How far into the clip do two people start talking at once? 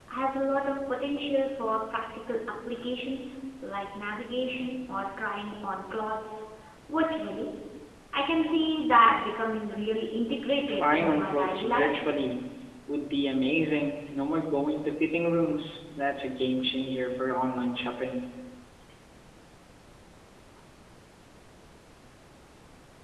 10.7 s

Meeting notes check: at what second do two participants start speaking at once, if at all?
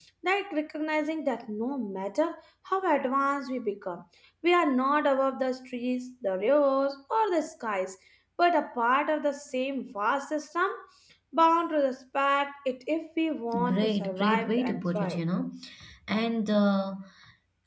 13.5 s

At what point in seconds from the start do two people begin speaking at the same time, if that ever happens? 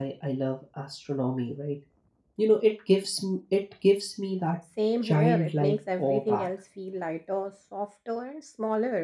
5.0 s

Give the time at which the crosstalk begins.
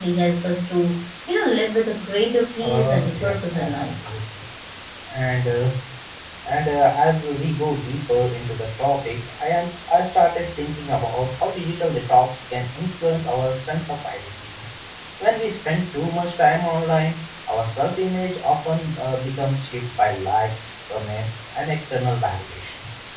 2.6 s

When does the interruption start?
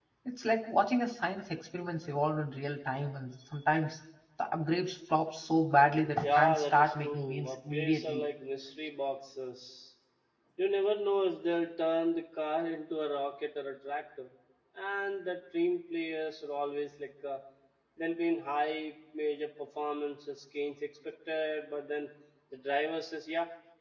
6.2 s

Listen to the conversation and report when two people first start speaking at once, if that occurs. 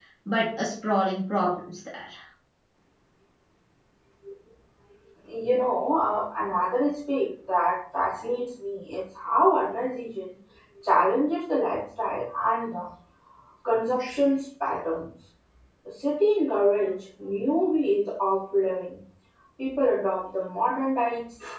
none

